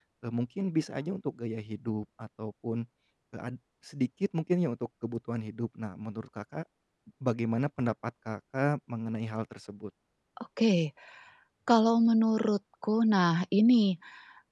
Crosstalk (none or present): none